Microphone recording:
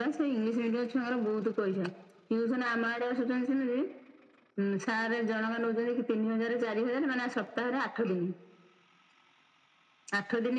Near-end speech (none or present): none